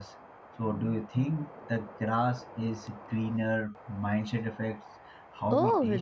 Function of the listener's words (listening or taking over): taking over